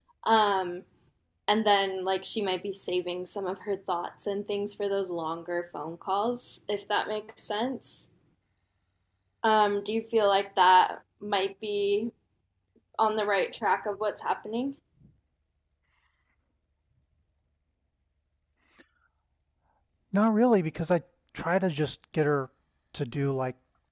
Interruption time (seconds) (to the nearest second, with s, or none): none